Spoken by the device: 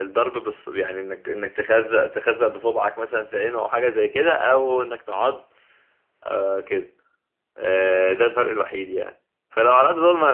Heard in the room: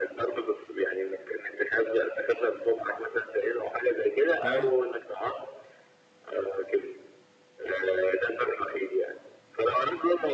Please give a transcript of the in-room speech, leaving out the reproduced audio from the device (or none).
بتاع